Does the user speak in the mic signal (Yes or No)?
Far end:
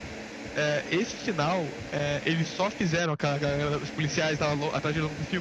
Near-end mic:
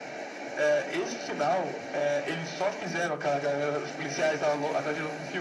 No